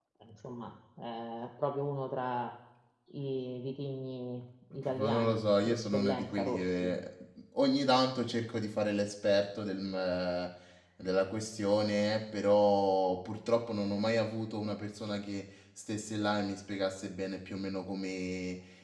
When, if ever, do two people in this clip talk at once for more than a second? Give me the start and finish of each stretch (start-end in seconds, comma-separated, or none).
4.7-6.9